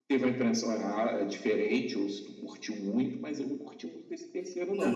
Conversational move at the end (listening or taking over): taking over